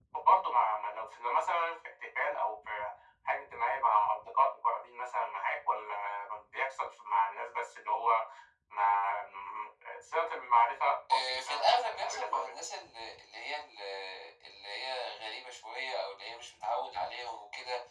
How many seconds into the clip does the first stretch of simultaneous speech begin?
11.1 s

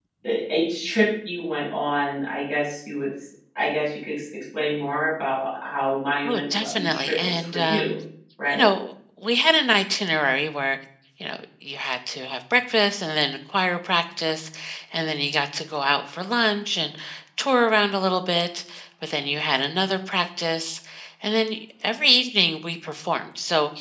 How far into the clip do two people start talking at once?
6.2 s

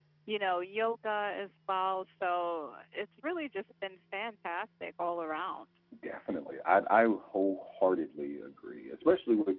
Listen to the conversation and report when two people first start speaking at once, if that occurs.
none

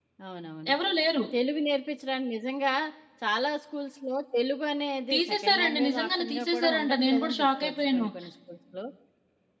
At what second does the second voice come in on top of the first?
5.1 s

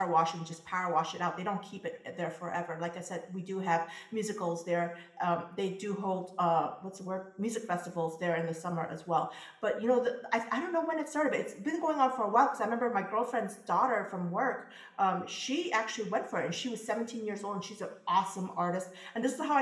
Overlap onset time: none

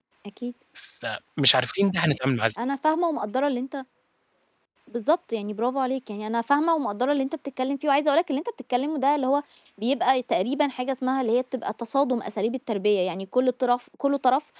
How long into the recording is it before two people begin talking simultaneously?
none

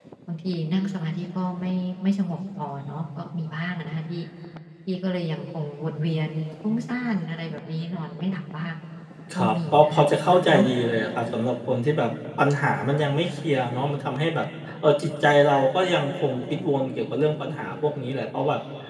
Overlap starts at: 9.4 s

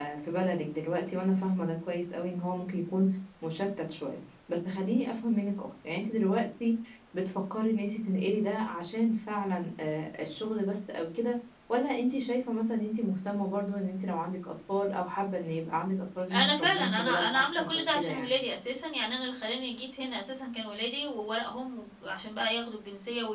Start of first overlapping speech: 16.3 s

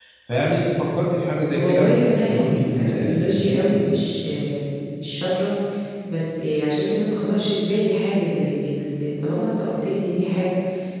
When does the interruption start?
1.5 s

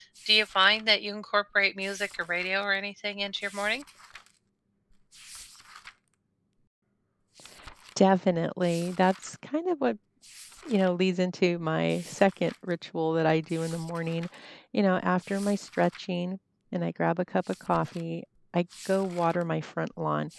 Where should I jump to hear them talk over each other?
none

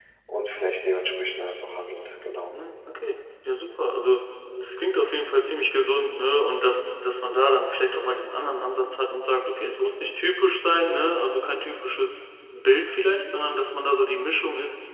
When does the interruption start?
none

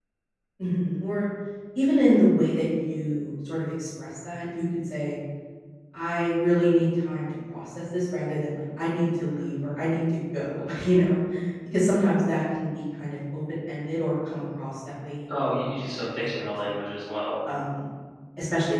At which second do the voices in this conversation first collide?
15.3 s

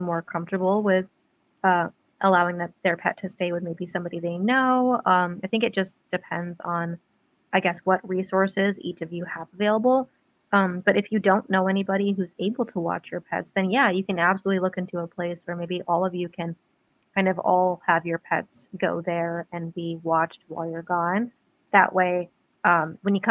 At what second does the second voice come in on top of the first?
none

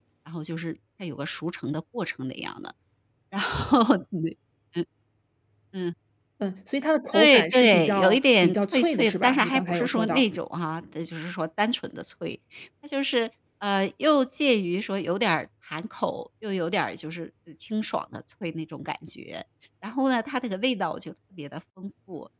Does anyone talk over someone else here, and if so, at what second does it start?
7.1 s

